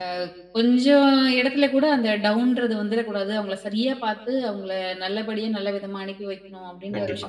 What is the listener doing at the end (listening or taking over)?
taking over